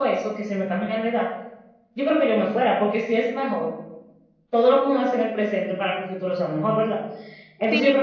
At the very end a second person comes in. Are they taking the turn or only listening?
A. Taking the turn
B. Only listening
A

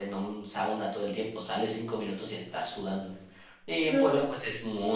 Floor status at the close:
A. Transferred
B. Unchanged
B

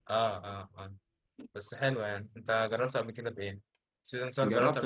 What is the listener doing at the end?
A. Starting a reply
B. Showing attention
A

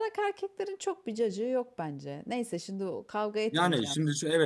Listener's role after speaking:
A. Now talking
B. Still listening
A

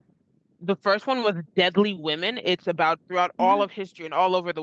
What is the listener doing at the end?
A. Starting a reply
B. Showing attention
B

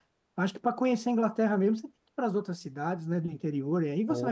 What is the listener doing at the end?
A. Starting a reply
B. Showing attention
A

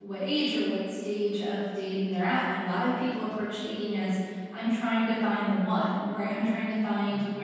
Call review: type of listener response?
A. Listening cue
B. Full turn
A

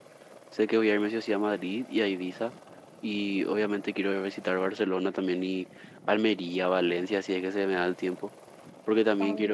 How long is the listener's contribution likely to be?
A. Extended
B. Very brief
B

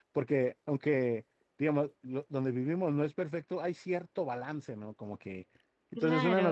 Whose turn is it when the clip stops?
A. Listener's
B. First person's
B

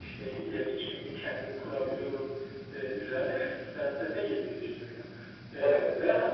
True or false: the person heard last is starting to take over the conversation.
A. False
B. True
A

